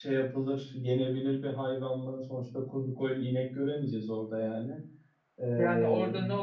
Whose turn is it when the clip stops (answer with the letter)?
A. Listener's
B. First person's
A